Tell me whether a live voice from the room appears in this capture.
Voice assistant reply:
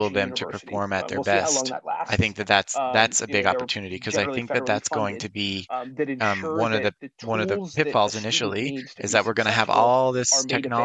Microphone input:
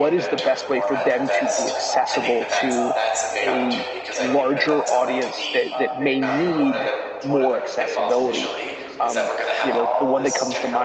Yes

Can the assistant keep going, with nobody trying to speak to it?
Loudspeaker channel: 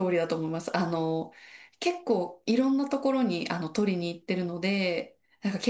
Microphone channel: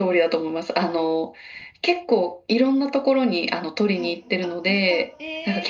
No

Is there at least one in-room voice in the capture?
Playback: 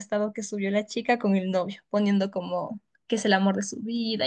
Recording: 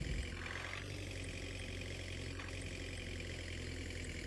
No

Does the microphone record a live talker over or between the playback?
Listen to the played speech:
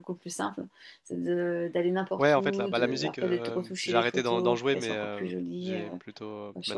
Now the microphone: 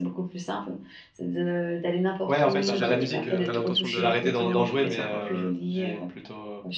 Yes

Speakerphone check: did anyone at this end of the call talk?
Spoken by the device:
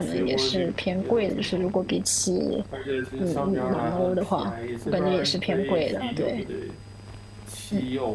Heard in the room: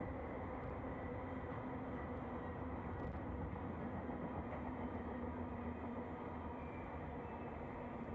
No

